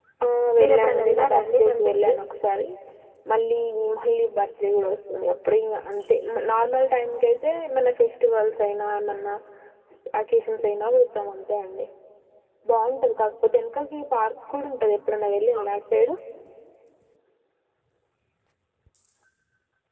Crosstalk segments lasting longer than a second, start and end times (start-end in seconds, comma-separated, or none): 0.6-2.1